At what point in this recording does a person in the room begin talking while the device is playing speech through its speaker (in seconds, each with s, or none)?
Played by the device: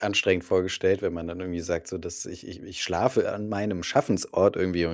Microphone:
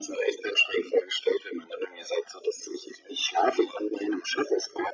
none